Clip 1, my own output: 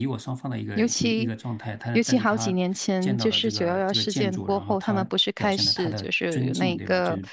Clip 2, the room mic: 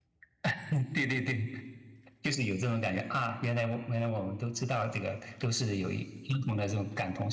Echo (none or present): none